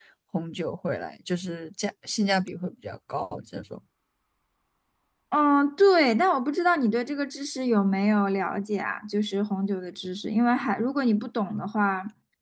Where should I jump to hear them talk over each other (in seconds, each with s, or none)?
none